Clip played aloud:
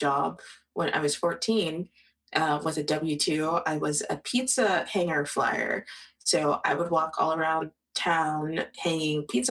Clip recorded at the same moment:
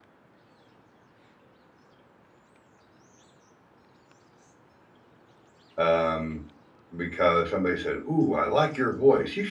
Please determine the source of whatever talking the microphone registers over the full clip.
user only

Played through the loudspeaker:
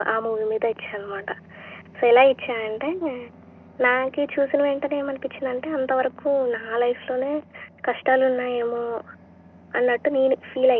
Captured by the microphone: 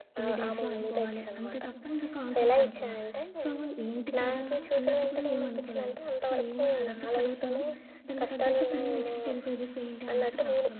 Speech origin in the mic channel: both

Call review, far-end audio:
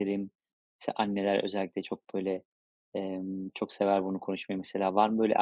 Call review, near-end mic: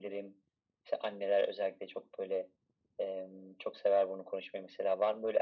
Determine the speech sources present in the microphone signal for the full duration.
echo only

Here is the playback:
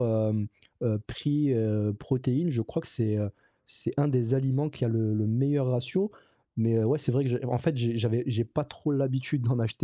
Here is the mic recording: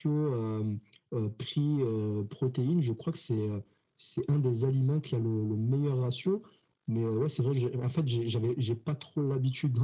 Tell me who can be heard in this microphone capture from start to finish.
echo only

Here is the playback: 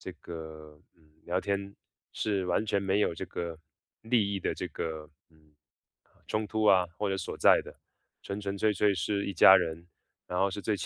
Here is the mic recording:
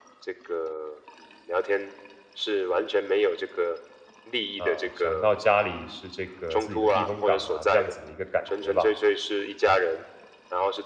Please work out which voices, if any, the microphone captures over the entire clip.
both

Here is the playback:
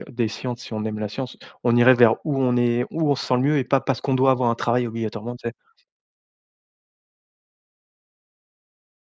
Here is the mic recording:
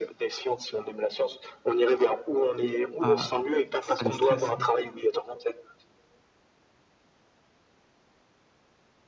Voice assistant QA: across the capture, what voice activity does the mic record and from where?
both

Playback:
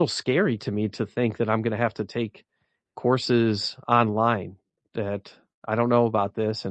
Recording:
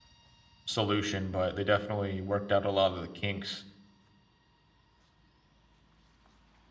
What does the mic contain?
user only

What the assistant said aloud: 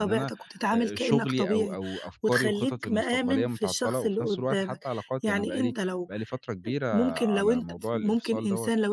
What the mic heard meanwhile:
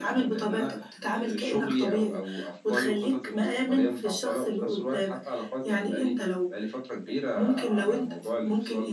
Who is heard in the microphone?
echo only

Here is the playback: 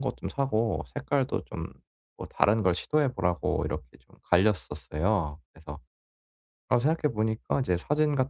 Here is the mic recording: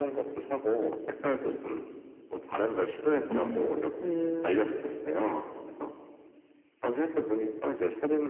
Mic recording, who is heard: both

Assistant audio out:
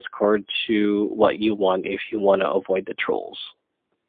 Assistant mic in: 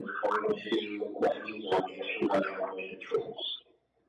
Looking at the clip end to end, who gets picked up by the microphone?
echo only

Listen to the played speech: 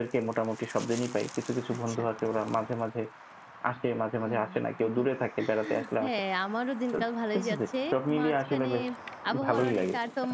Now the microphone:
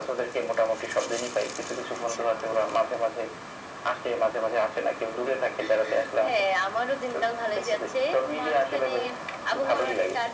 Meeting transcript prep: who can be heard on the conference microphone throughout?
echo only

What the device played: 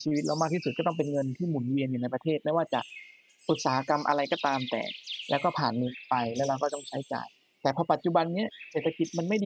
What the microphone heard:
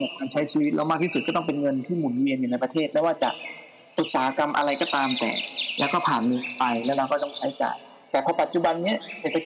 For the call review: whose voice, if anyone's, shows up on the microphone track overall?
echo only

